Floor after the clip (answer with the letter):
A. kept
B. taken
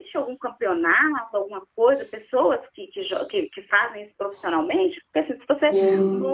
B